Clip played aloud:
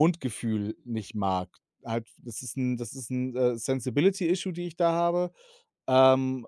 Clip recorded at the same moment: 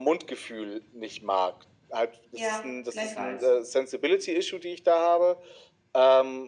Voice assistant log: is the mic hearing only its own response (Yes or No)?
No